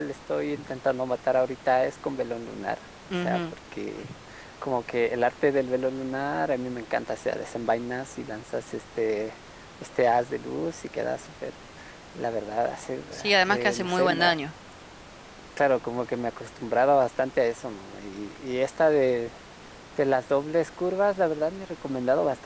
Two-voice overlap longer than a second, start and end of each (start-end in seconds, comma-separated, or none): 13.1-14.3